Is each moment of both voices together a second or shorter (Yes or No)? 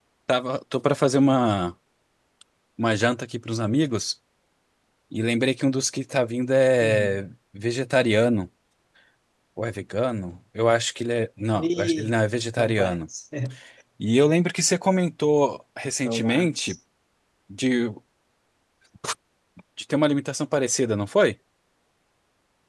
Yes